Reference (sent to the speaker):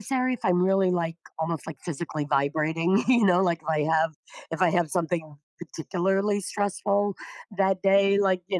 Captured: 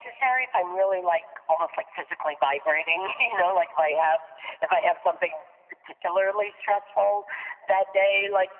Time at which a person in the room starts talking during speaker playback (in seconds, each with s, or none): none